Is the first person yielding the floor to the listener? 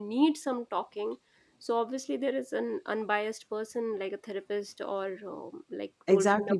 Yes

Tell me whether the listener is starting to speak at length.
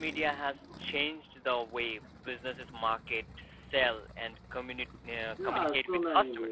Yes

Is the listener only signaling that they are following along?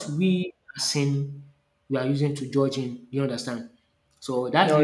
Yes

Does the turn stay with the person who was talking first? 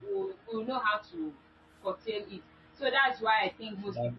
Yes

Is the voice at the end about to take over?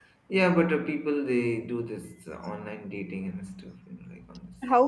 Yes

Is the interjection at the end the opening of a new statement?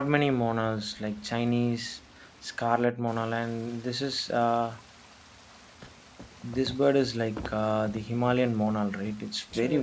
Yes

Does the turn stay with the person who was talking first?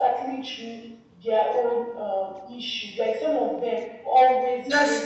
Yes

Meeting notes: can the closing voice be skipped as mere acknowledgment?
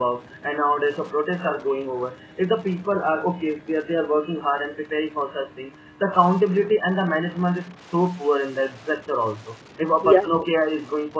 Yes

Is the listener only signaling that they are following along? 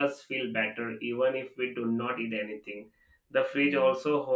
Yes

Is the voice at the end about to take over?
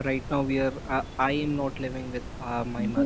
Yes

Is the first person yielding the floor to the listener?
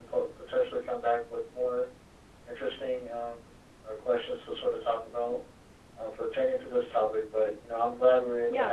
Yes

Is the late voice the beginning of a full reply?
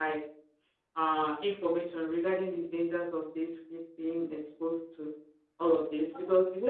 No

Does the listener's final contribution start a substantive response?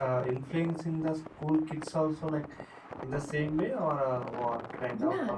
Yes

